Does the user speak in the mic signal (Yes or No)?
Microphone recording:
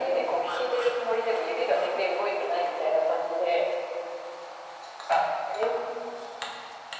No